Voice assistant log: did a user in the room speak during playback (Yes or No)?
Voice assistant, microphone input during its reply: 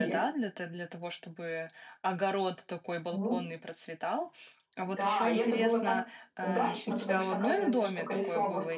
Yes